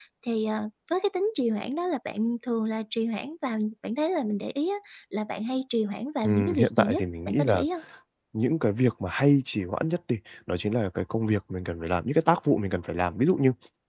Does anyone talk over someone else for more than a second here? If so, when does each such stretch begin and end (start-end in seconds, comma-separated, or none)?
6.2-7.7